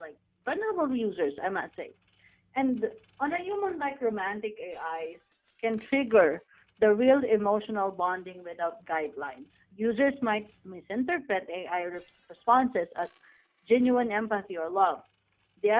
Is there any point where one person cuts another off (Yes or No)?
No